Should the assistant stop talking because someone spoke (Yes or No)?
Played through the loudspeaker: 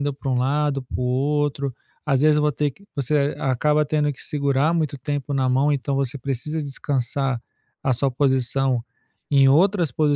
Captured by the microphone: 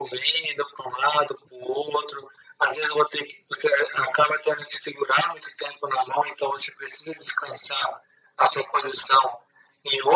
No